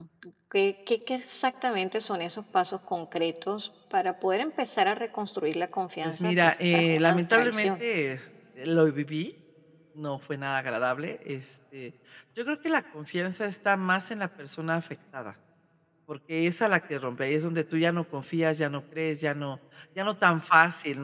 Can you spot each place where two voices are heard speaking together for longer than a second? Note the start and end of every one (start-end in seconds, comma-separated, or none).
6.0-7.8